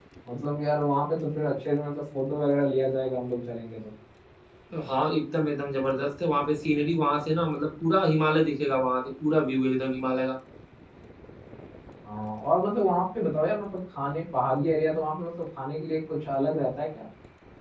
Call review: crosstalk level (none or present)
none